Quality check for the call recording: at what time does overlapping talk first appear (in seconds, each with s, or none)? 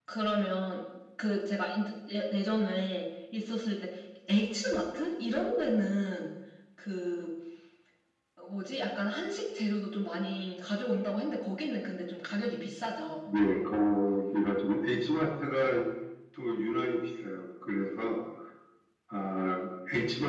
none